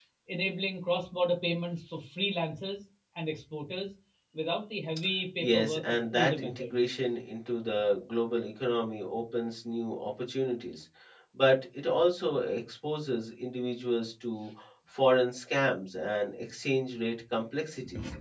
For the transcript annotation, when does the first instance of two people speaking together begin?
5.4 s

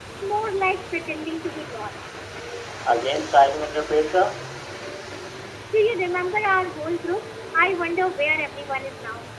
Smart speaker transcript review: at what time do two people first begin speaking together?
none

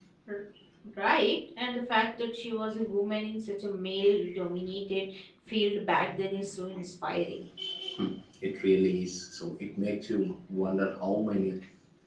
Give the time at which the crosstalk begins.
none

